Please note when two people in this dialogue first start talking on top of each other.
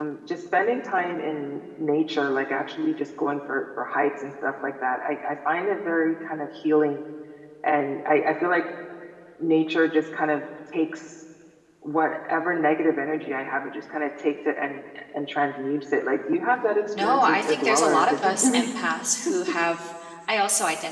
17.0 s

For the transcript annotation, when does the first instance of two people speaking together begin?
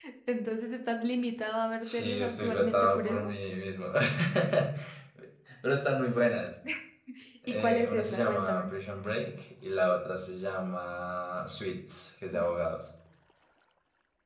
1.8 s

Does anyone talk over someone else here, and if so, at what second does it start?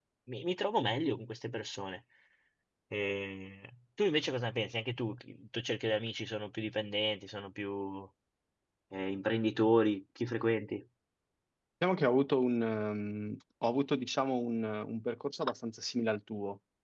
none

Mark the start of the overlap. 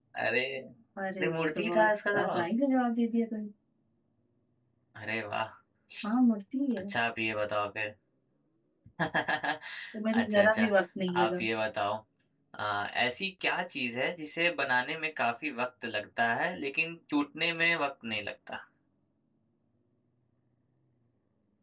1.2 s

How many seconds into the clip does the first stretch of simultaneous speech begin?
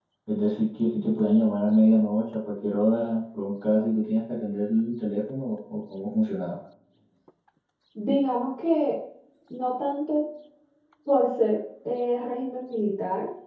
none

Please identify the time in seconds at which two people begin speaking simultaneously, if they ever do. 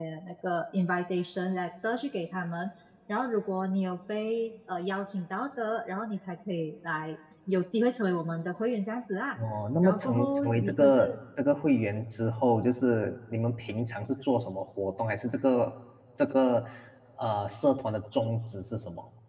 9.8 s

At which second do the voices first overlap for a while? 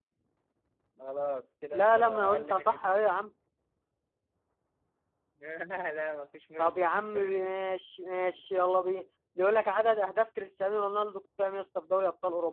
1.7 s

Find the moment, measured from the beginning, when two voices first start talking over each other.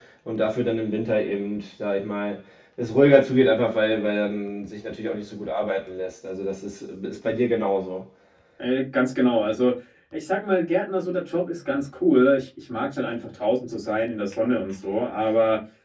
none

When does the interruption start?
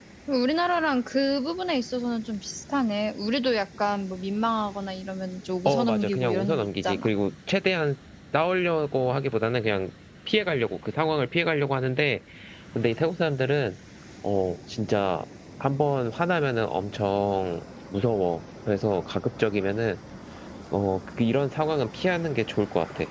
5.7 s

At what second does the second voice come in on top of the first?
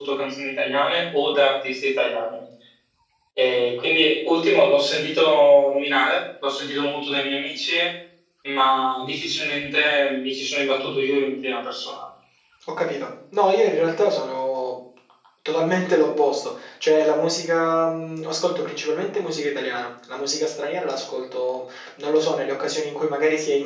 none

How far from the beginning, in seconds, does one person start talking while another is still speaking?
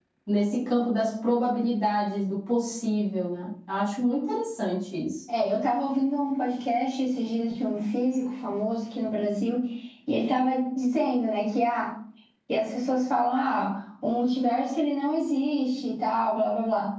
none

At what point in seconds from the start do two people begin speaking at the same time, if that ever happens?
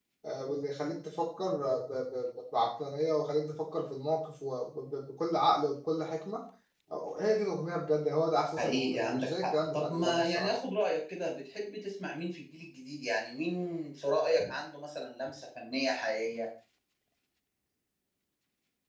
8.6 s

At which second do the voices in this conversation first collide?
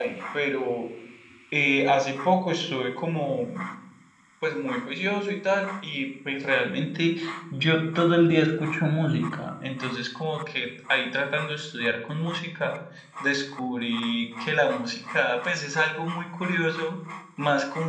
none

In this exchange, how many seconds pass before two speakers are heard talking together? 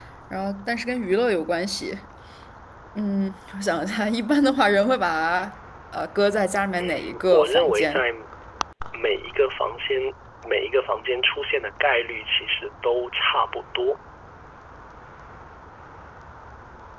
6.8 s

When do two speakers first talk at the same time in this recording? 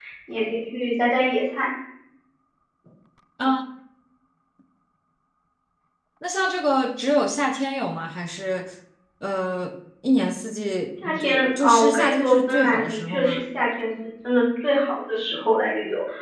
11.0 s

